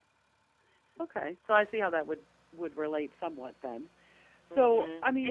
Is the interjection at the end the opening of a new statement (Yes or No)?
Yes